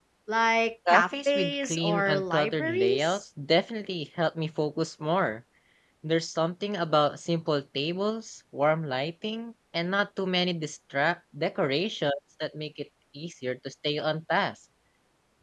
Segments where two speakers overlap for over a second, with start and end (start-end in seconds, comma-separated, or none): 0.9-3.2